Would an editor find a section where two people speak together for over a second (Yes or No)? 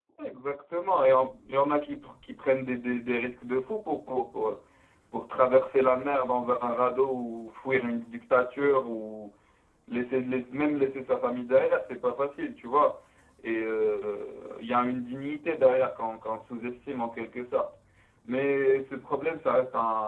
No